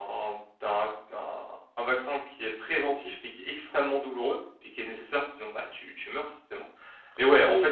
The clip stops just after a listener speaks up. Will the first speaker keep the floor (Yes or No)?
Yes